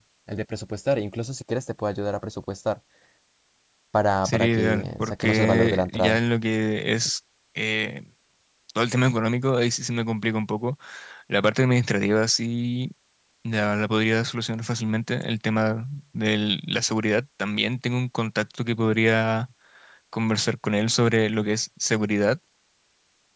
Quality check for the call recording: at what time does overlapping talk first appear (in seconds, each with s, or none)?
4.2 s